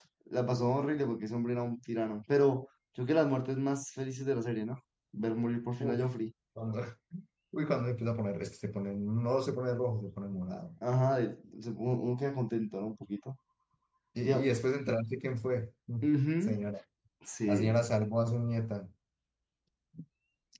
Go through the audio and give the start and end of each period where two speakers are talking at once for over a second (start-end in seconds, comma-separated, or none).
none